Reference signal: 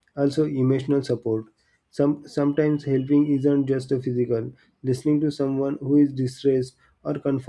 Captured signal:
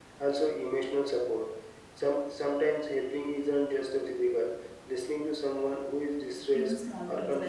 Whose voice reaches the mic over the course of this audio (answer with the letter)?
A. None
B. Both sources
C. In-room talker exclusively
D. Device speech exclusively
B